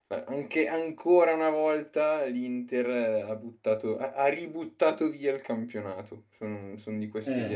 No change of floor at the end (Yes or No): Yes